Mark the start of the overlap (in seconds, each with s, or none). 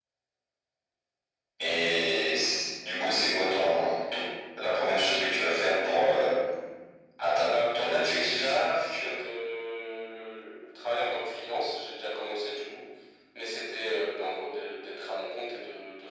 7.5 s